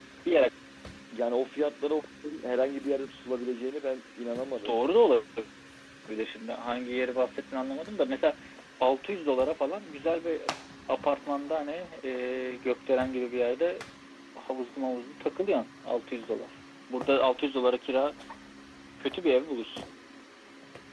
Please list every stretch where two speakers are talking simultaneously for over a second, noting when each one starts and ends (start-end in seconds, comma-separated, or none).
none